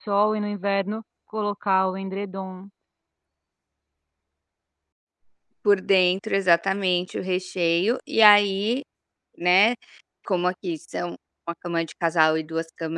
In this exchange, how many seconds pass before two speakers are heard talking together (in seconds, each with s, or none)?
none